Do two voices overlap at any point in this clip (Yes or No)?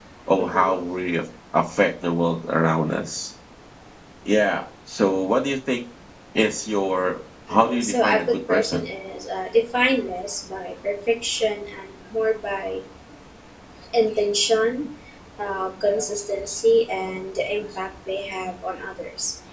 Yes